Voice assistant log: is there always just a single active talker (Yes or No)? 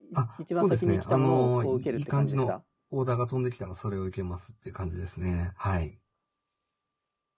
No